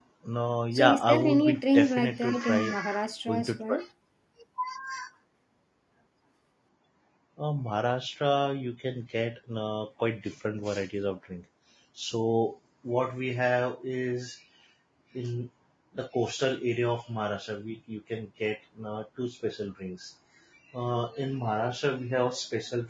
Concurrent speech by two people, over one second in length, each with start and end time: 0.7-2.7

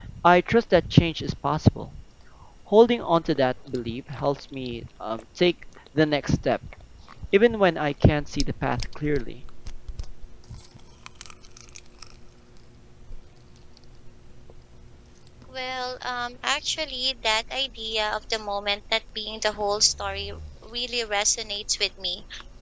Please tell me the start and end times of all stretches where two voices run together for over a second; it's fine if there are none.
none

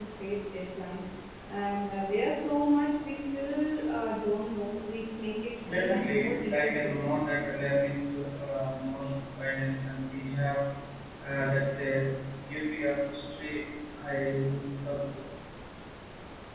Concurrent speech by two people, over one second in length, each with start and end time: 5.7-7.1

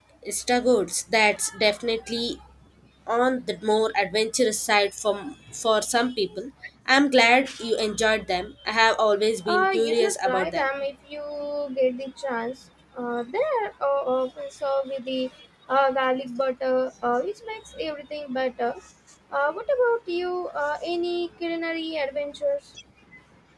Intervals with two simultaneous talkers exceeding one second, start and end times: 9.5-10.7

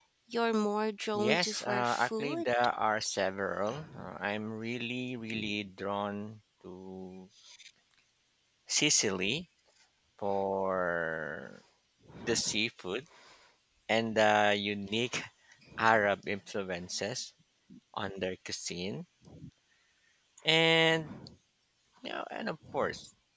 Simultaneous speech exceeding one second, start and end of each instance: 1.1-2.5

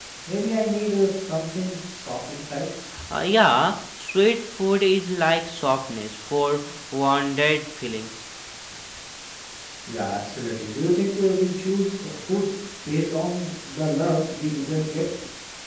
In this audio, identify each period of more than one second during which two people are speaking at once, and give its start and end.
none

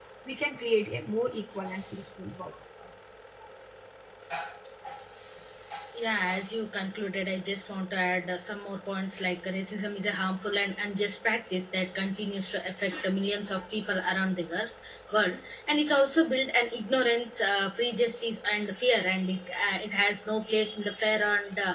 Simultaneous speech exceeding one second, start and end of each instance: none

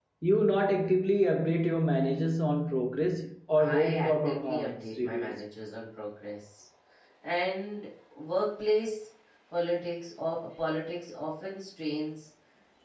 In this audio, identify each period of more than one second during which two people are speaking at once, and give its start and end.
3.6-5.3

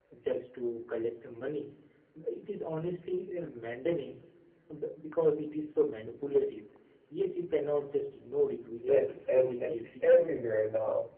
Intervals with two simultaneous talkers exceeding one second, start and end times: 8.8-10.3

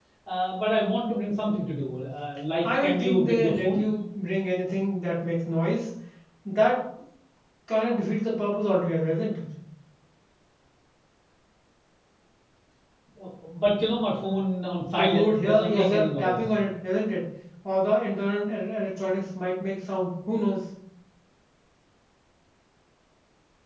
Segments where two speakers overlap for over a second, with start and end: 2.6-3.8, 14.9-16.4

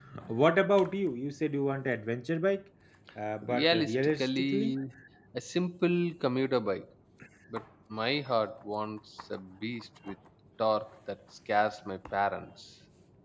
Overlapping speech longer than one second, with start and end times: 3.4-4.7

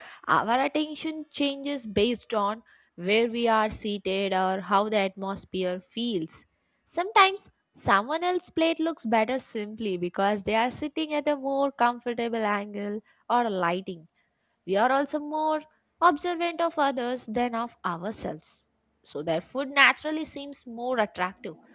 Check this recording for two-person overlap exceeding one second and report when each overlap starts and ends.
none

